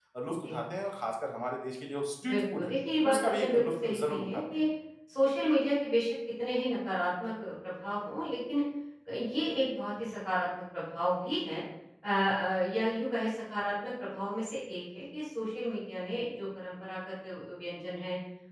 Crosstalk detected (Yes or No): Yes